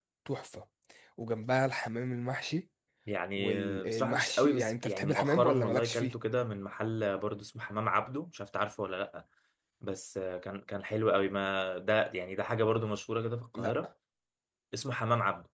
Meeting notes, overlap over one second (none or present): present